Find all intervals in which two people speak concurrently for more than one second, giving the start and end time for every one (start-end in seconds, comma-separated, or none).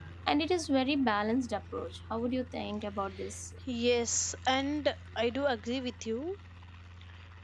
none